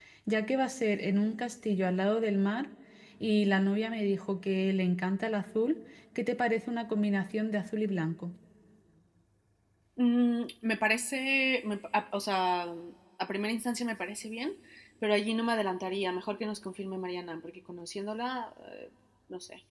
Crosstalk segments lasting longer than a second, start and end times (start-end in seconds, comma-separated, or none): none